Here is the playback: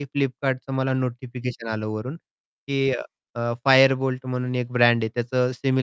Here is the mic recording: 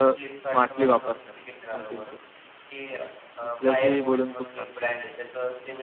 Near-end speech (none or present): present